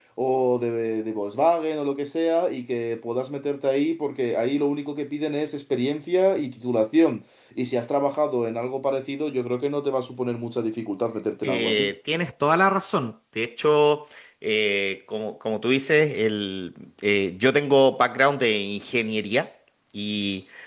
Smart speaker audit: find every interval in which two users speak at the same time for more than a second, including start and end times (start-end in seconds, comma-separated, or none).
none